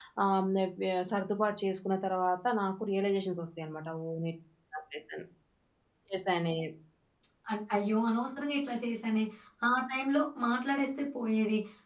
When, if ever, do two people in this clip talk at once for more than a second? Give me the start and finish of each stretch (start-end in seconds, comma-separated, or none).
none